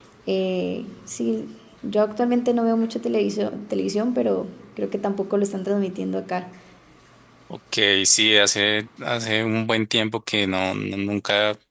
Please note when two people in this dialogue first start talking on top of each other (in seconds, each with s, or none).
none